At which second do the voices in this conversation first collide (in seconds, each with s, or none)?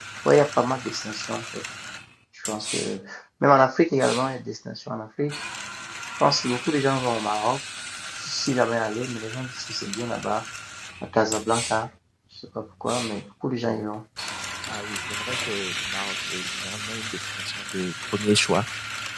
none